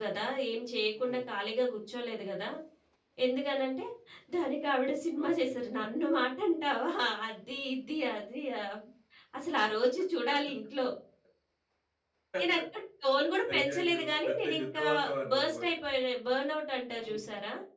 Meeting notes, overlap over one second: present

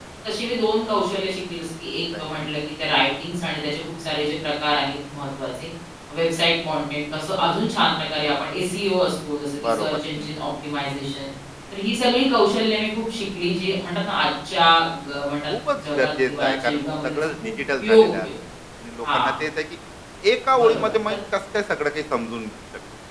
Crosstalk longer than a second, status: present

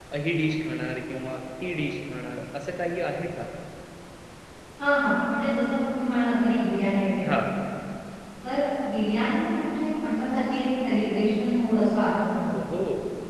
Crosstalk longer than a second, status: none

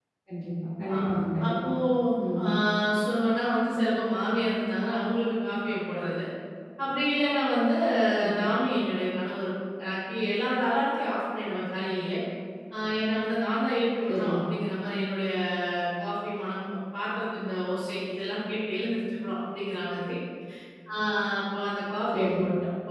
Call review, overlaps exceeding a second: none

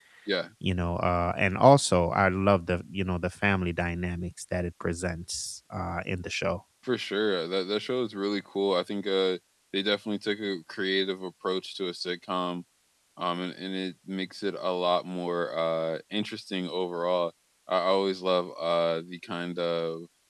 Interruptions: none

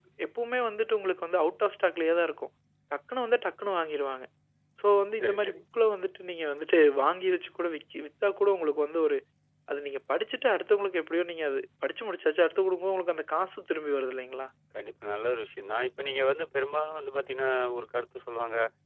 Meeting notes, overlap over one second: none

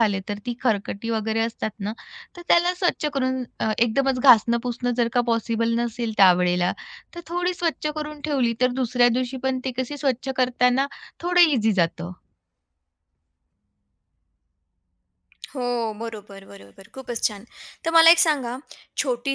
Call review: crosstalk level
none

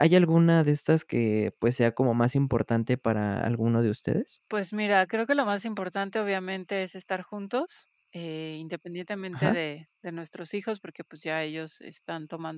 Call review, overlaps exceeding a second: none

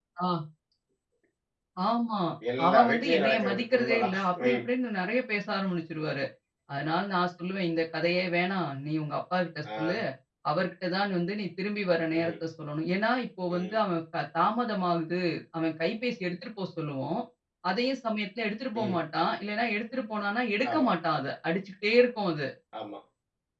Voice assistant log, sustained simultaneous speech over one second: present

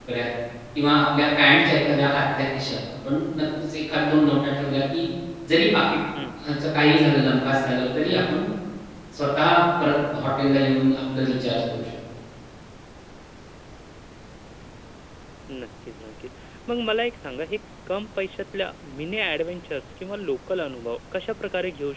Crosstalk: none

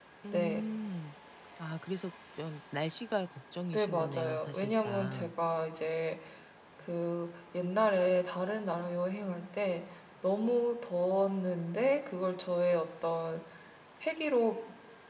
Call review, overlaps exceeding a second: present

